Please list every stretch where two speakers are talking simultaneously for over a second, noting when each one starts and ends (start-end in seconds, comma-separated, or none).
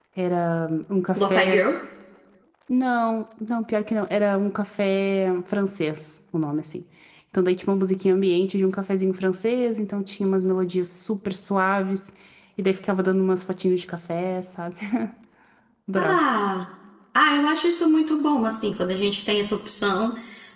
none